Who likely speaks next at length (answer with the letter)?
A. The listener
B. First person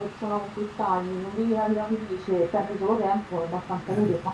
B